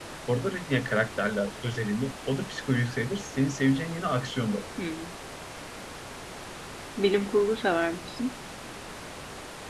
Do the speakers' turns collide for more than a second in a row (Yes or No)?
No